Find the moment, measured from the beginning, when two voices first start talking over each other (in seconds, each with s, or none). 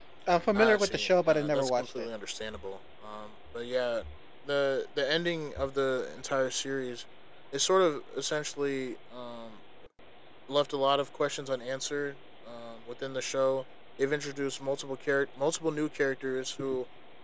0.6 s